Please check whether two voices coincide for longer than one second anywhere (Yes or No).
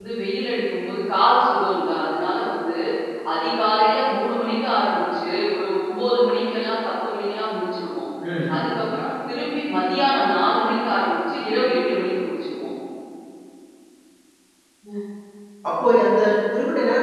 No